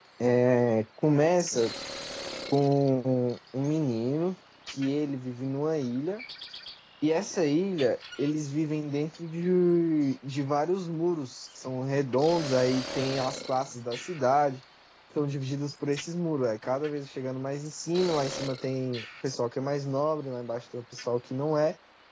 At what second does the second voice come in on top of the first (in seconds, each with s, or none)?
none